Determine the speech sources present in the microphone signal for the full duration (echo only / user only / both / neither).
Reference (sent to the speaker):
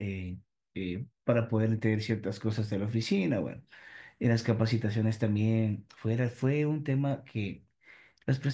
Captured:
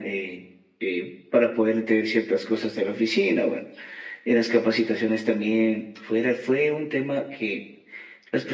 echo only